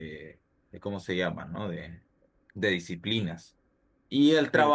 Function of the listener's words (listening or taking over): listening